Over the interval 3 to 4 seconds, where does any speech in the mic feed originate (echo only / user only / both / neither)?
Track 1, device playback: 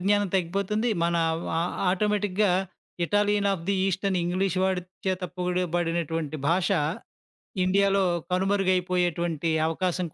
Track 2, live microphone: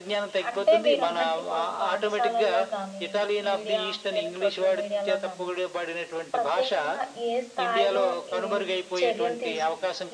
both